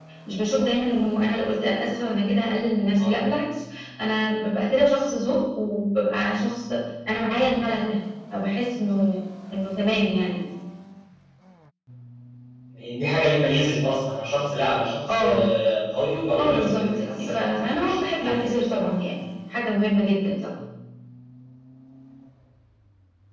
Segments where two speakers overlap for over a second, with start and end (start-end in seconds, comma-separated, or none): 16.4-18.4